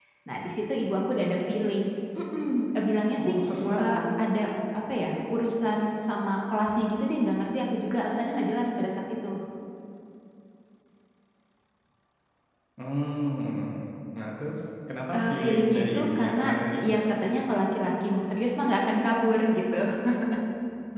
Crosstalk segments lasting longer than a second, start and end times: 15.2-16.5

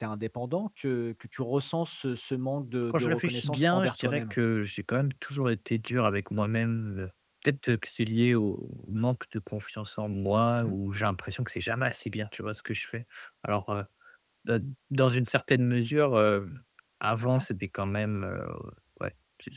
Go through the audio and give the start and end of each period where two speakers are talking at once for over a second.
2.9-4.4

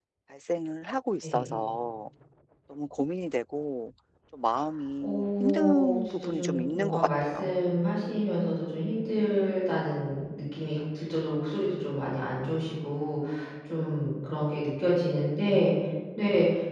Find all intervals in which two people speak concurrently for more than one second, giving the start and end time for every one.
5.0-7.5

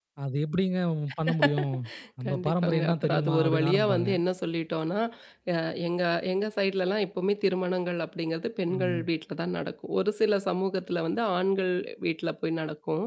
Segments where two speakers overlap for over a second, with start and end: 2.2-4.1

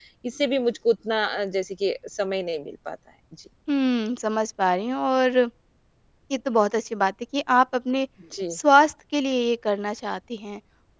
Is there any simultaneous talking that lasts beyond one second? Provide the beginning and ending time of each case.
none

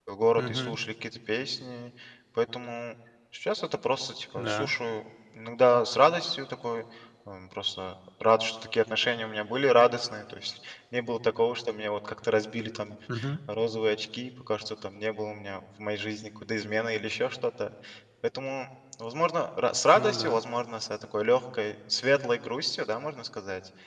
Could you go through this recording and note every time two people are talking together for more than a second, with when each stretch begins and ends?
none

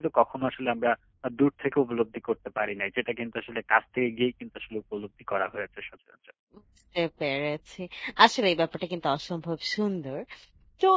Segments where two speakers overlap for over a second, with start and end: none

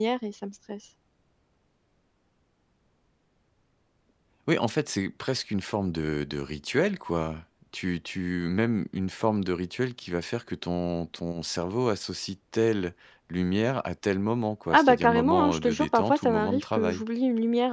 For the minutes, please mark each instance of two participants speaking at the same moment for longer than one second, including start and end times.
14.7-17.0

